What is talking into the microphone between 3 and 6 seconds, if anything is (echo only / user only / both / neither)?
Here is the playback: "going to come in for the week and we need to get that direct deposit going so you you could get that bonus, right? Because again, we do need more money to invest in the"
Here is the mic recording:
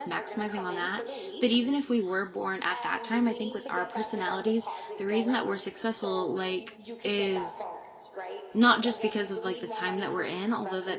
both